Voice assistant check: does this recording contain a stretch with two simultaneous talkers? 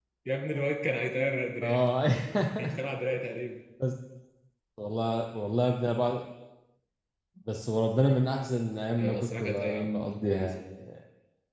Yes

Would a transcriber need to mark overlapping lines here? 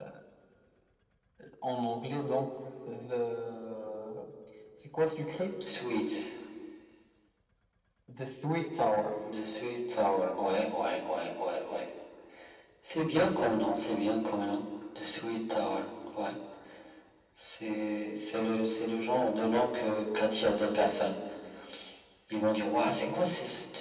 No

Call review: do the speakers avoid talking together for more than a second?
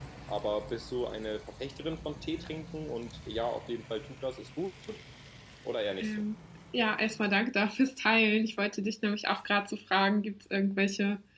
Yes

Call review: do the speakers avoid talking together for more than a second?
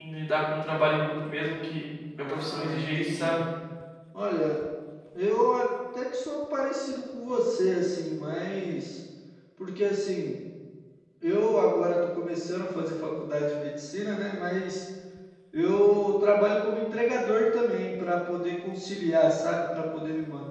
No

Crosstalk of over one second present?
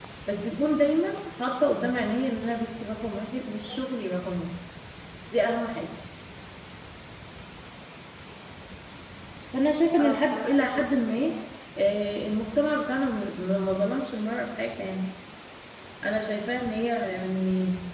Yes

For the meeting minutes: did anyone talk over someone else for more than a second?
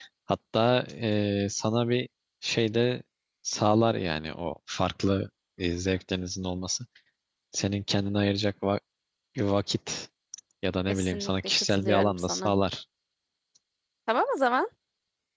Yes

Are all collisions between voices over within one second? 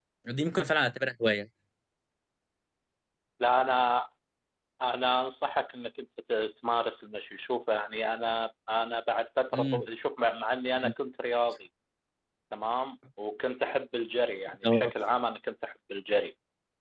Yes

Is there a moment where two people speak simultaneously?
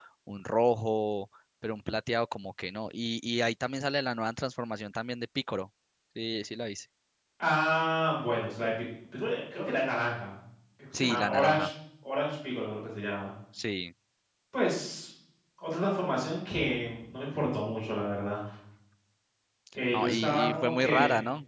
Yes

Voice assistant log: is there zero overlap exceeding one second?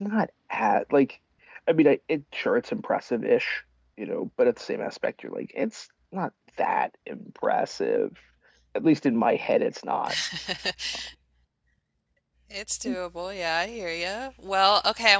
Yes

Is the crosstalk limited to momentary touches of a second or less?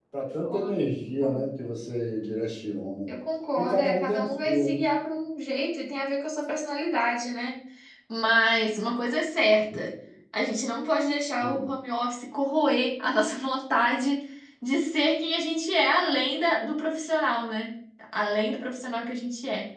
No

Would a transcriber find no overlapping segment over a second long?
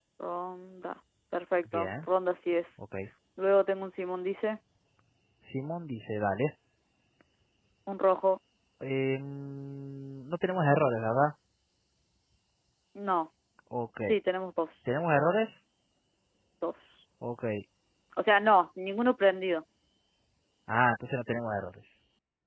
Yes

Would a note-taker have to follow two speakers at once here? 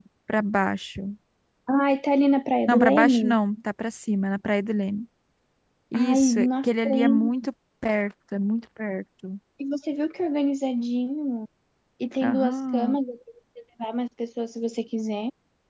Yes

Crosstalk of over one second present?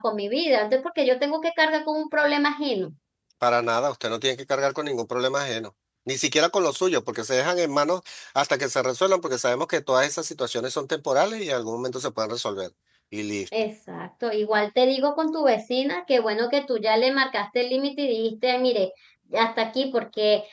No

